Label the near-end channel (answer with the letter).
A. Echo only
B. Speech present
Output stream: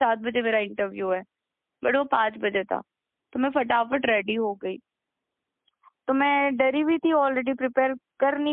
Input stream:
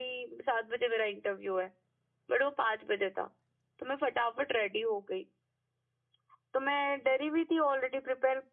A